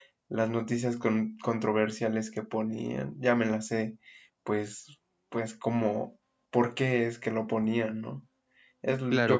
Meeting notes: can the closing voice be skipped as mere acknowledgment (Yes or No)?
No